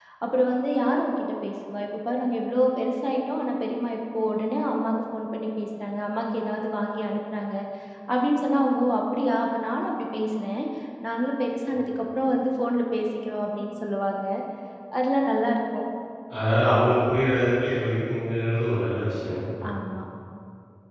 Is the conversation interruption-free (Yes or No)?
Yes